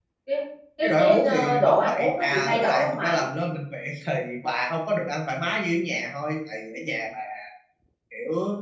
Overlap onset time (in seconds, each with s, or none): 0.8 s